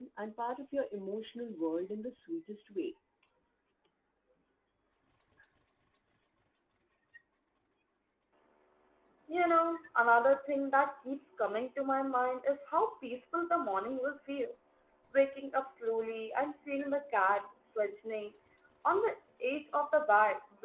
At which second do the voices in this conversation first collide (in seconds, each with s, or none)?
none